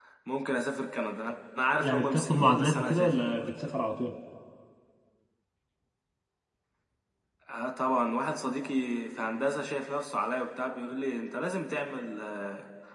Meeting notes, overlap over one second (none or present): present